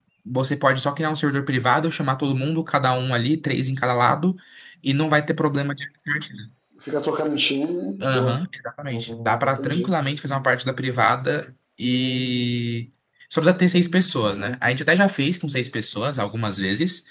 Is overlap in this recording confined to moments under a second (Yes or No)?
Yes